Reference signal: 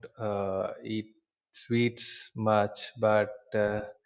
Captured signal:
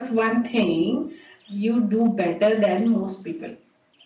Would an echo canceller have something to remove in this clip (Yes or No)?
No